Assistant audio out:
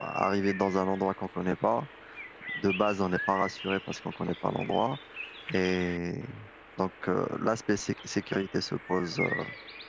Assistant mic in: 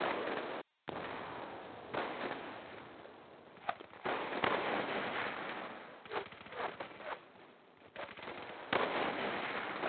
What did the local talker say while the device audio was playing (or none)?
none